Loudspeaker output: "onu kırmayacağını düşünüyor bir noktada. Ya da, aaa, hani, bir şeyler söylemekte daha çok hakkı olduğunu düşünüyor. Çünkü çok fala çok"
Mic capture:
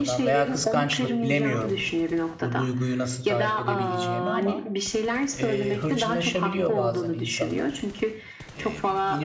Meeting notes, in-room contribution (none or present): present